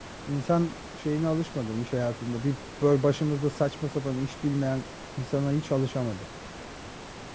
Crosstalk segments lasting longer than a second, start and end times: none

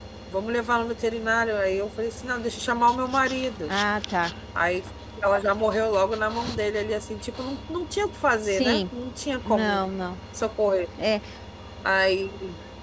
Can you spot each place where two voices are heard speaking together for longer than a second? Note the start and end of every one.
none

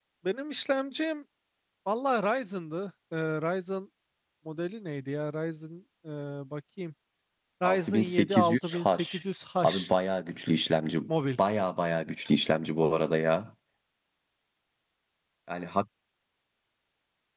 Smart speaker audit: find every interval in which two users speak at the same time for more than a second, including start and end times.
7.6-9.0

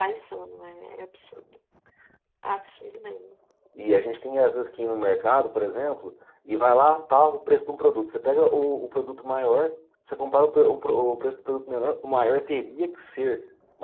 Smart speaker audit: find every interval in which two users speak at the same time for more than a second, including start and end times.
none

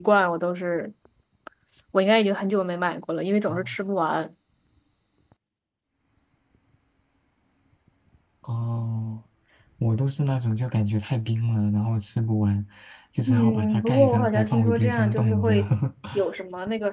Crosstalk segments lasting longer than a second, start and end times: 13.3-15.5

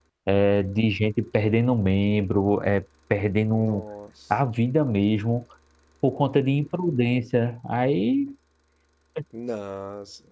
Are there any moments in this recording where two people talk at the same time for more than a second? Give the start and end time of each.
none

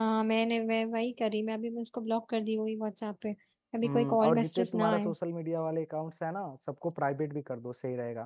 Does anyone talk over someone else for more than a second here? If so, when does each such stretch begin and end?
3.8-5.1

